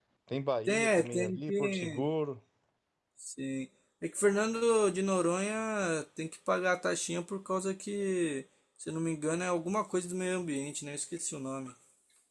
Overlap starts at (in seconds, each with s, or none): 0.7 s